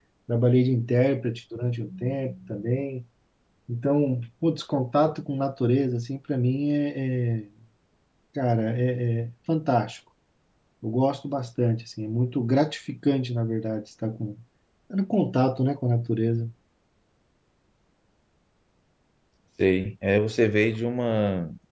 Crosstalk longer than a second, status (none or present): none